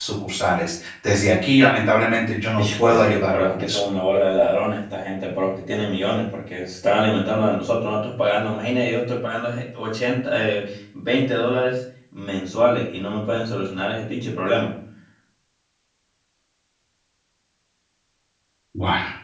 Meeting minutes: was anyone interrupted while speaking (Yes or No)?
Yes